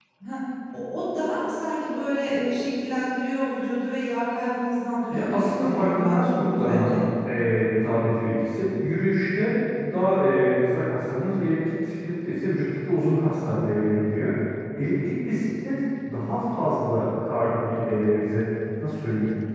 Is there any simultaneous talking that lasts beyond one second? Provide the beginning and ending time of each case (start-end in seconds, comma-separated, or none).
5.1-7.0